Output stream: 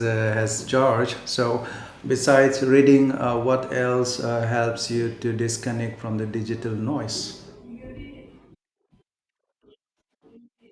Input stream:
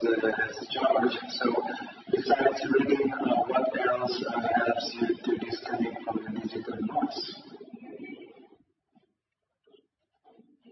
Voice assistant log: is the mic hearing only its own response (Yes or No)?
Yes